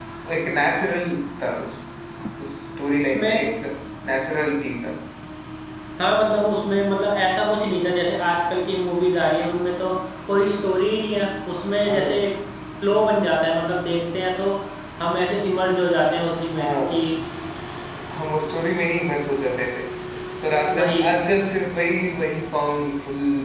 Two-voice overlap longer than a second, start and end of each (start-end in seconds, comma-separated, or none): none